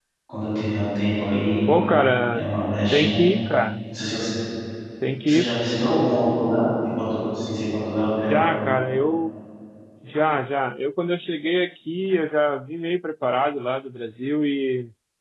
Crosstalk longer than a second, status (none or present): none